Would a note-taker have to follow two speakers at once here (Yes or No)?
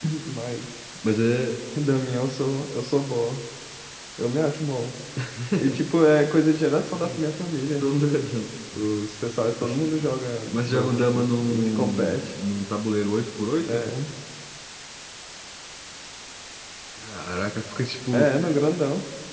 Yes